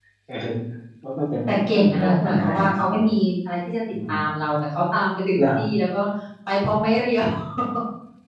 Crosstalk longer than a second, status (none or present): present